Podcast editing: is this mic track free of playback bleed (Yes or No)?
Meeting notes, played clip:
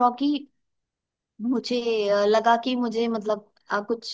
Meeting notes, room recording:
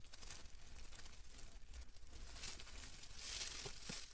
Yes